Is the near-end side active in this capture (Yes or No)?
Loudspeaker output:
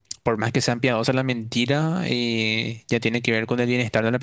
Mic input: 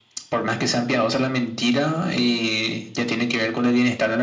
No